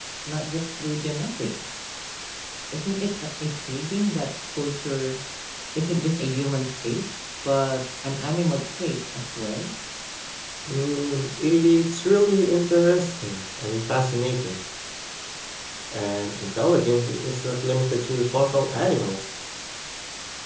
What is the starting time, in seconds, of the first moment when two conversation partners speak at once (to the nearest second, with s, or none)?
none